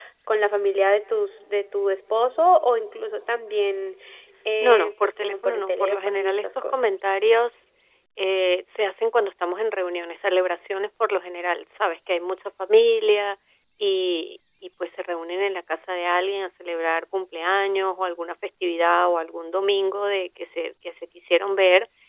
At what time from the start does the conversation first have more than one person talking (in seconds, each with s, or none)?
4.6 s